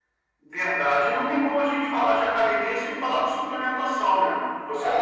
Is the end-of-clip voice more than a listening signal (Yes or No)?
Yes